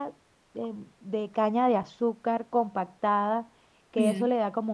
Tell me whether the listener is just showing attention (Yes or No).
Yes